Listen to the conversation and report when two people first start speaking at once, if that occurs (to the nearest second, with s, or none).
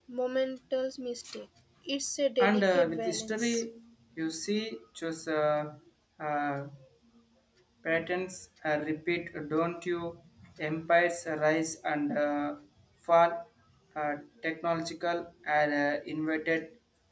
2 s